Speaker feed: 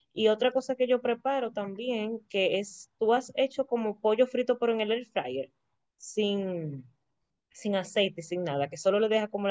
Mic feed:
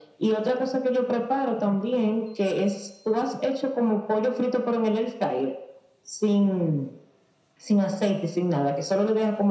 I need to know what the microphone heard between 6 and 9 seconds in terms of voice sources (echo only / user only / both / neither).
echo only